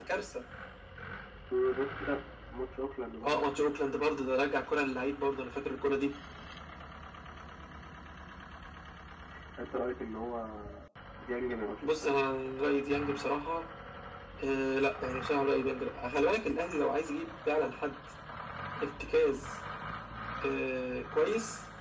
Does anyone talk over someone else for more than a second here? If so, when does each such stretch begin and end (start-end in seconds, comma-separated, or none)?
none